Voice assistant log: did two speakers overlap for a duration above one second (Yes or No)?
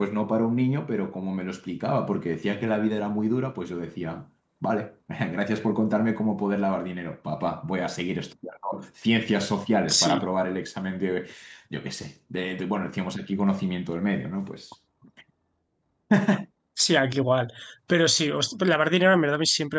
No